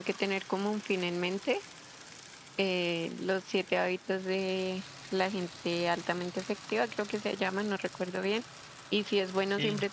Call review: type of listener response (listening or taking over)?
listening